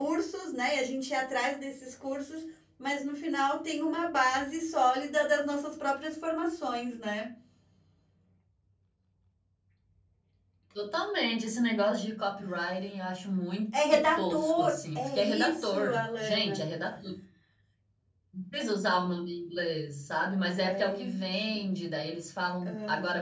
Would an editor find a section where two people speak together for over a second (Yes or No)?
Yes